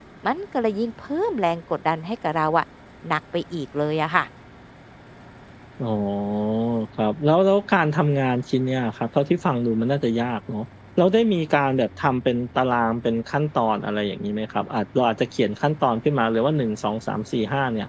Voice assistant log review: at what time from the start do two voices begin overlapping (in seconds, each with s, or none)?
none